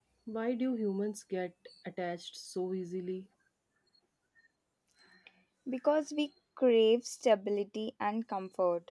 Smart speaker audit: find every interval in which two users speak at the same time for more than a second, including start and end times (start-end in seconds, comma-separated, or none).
none